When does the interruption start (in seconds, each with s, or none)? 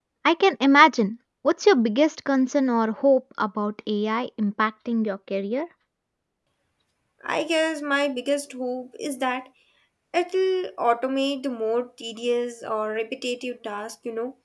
none